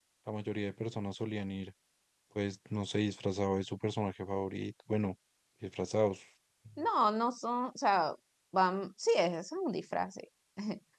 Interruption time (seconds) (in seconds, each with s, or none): none